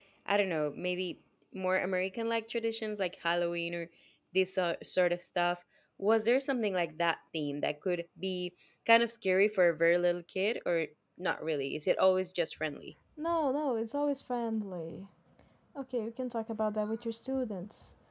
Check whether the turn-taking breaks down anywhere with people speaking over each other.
No

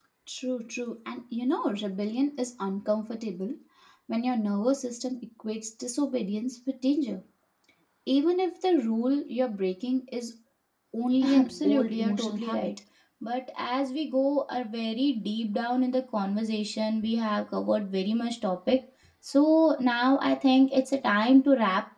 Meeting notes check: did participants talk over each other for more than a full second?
Yes, from 11.4 s

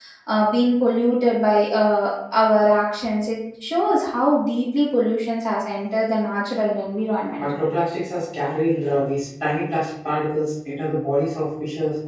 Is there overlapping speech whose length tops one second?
No

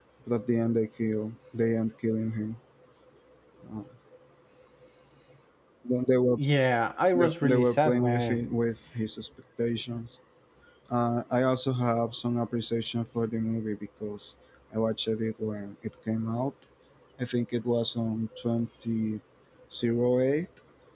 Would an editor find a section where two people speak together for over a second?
Yes, from 7.1 s

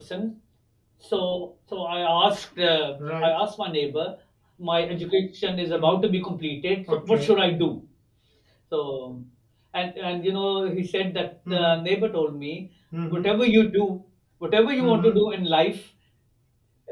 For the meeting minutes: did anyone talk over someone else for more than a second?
No

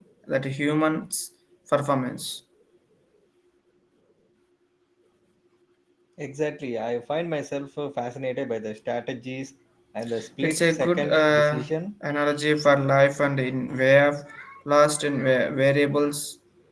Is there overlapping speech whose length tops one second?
Yes, from 10.4 s

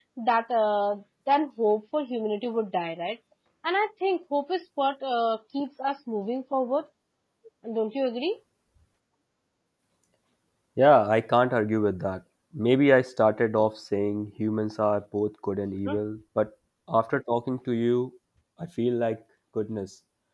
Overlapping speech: No

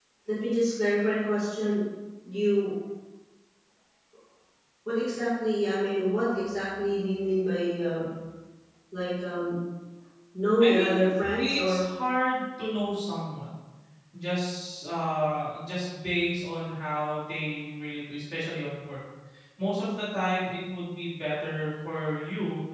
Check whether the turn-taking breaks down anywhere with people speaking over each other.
Yes, from 10.6 s

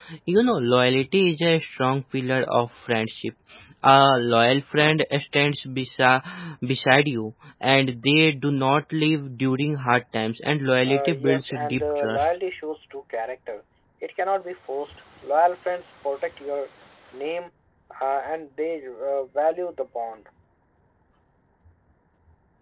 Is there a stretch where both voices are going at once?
Yes, from 10.8 s

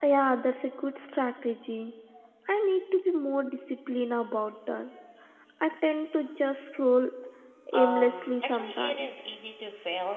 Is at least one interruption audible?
Yes, from 7.7 s

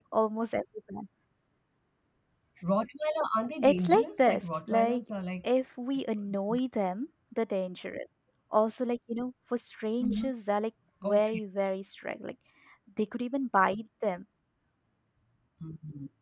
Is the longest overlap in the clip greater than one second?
Yes, from 3.6 s

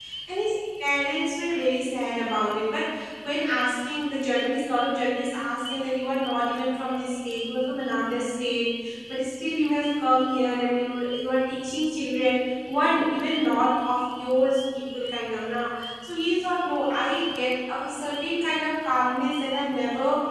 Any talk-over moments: No

